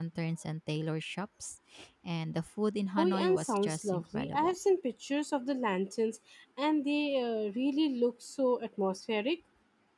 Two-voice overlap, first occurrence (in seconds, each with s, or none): 3.0 s